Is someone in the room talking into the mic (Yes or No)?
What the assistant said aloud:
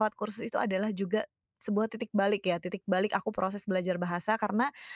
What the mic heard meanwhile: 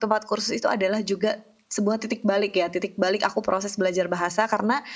No